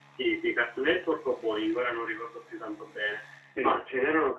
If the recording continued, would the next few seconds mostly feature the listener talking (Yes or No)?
No